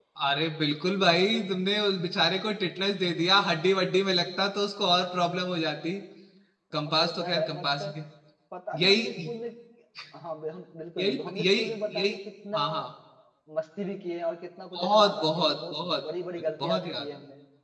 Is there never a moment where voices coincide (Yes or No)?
No